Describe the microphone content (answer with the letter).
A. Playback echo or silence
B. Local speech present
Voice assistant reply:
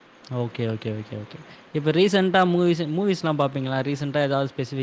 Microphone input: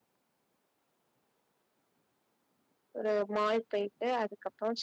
B